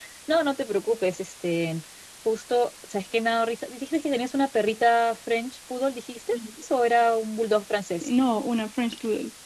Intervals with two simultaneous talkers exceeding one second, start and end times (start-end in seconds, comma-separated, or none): none